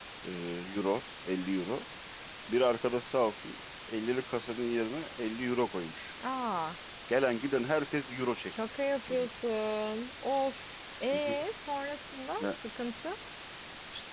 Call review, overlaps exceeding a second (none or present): none